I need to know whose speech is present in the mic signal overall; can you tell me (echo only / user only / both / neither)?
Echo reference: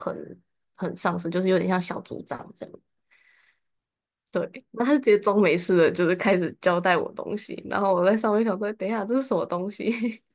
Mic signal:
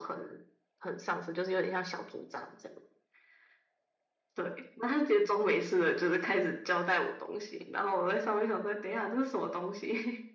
echo only